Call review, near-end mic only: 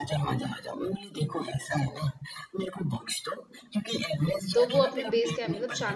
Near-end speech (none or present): present